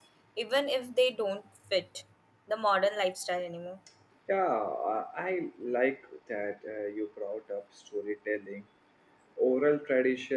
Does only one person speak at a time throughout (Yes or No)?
Yes